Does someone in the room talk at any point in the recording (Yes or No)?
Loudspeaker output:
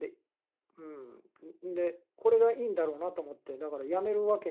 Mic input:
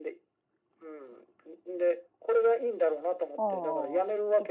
Yes